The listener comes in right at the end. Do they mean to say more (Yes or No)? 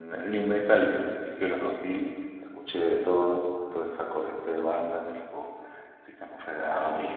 No